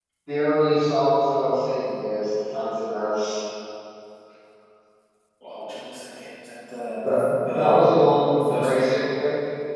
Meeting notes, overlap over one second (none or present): present